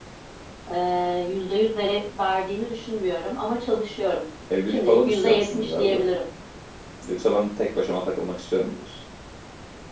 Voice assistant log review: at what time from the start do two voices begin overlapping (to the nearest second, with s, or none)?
4 s